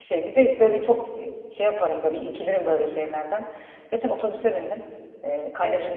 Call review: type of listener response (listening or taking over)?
listening